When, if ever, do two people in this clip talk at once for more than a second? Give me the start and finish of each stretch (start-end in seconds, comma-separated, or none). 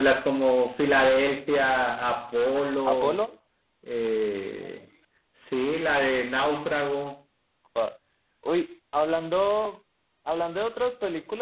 none